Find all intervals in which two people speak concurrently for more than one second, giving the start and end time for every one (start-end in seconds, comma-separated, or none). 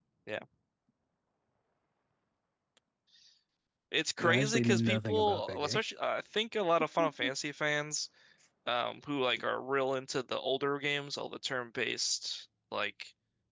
4.3-5.8